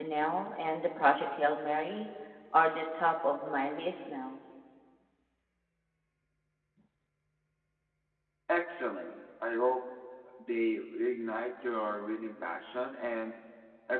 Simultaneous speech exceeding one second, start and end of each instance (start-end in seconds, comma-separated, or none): none